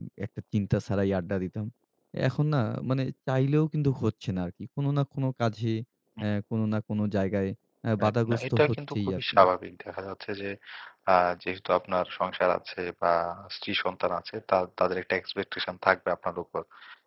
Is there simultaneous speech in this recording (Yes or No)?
Yes